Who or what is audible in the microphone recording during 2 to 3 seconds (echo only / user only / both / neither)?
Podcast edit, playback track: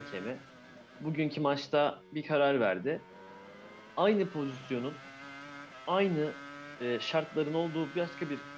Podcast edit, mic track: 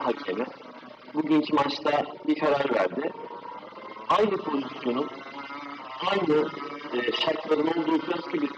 echo only